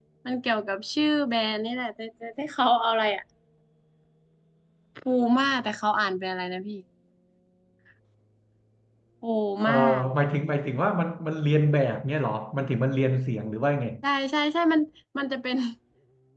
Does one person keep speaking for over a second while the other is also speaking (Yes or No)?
No